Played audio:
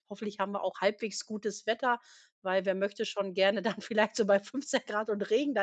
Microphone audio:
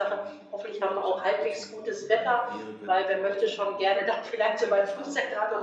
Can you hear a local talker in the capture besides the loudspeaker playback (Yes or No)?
Yes